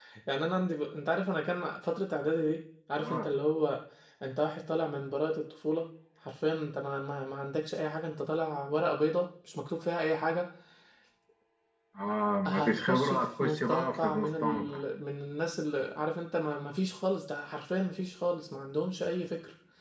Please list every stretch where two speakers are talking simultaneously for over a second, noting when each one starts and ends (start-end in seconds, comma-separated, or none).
12.5-14.8